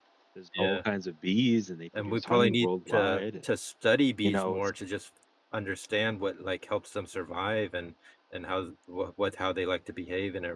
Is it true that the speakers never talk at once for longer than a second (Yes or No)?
No